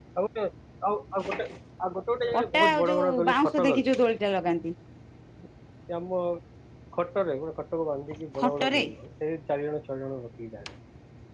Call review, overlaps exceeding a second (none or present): present